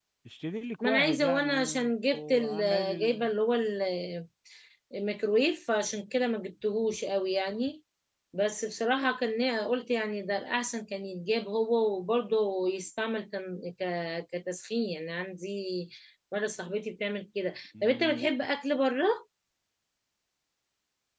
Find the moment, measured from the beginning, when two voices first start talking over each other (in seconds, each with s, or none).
0.8 s